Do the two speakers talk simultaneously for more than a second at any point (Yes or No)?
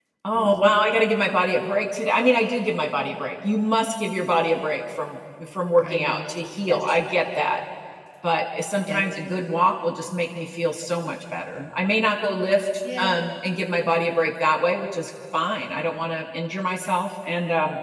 No